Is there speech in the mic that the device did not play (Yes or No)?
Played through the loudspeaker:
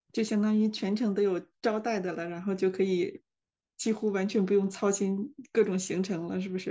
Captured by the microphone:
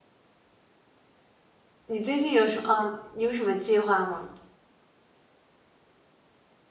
Yes